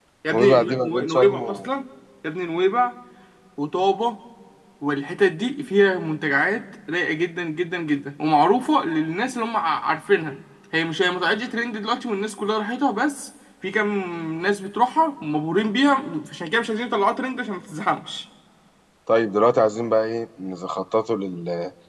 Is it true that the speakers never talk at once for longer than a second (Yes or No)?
No